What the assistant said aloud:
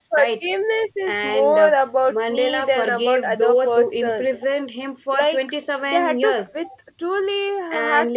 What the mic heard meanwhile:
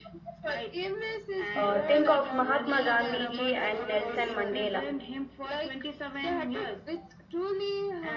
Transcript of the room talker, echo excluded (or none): uh, think of Mahatma Gandhi ji and Nelson Mandela.